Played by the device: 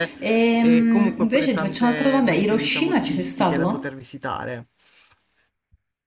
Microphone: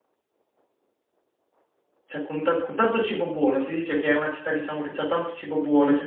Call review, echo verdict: none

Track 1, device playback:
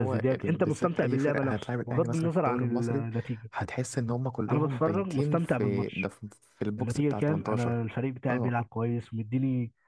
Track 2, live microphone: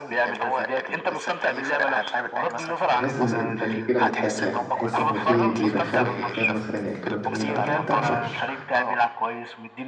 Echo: present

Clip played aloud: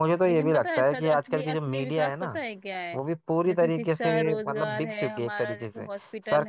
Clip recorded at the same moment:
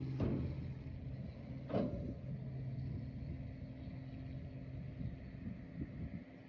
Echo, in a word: none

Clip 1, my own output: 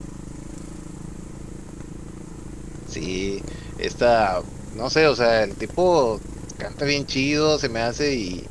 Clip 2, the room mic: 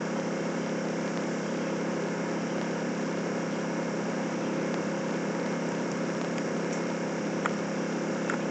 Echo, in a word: none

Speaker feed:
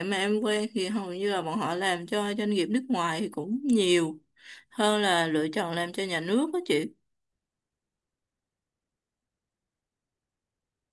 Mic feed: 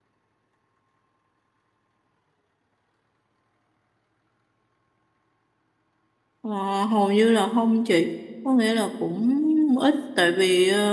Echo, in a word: none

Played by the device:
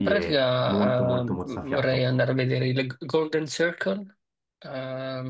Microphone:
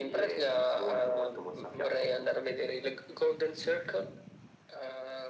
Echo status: present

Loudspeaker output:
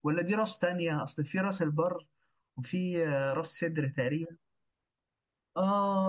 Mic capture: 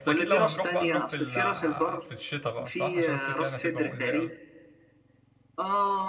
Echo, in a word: present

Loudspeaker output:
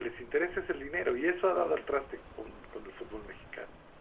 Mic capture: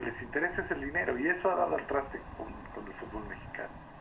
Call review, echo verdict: present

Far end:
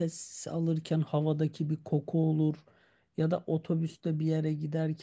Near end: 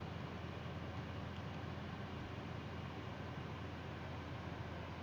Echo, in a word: none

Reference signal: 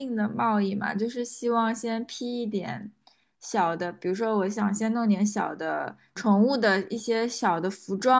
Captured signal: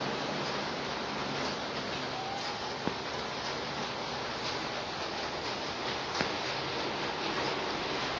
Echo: none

